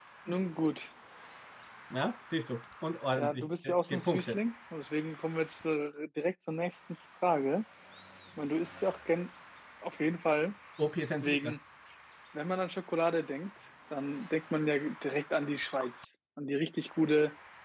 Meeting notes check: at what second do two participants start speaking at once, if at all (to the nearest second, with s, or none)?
3 s